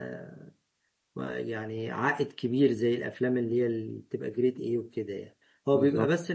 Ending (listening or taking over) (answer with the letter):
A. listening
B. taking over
A